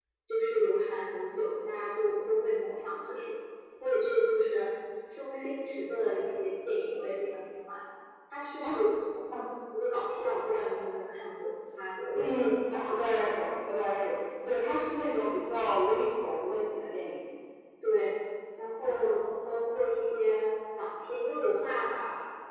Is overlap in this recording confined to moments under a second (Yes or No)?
Yes